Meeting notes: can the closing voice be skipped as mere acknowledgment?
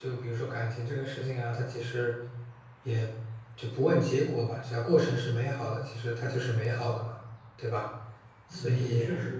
No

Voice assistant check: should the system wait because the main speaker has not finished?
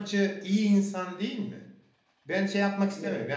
Yes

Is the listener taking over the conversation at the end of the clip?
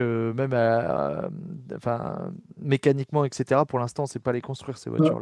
Yes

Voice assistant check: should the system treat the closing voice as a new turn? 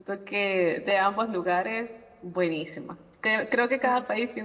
No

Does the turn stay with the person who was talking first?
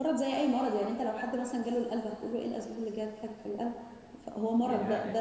Yes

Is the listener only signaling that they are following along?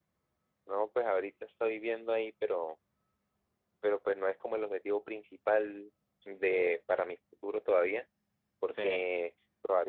Yes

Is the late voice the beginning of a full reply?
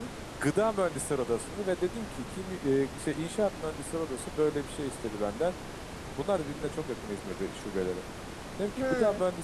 No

